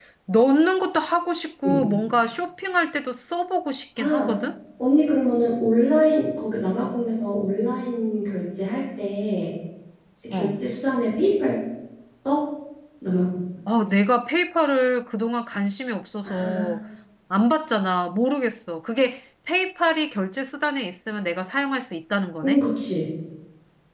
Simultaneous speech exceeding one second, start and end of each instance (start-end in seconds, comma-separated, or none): none